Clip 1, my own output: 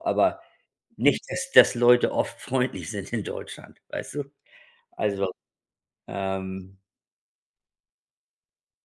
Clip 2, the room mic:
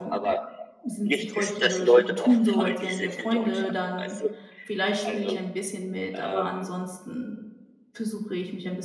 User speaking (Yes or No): Yes